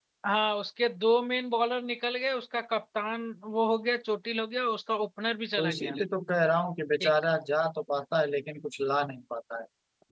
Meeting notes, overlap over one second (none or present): none